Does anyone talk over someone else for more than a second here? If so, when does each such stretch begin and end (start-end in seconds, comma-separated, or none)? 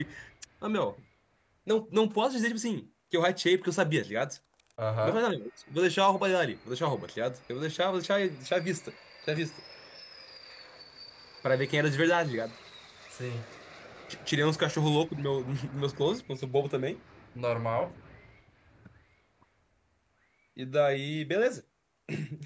none